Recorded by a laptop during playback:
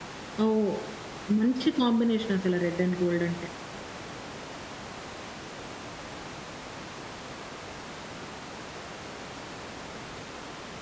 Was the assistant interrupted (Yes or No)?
Yes